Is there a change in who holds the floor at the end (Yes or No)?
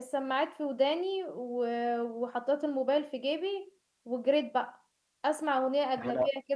No